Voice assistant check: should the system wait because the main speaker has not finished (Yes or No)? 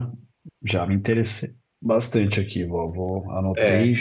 Yes